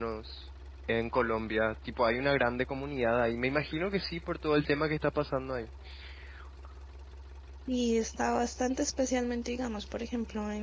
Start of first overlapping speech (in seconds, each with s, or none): none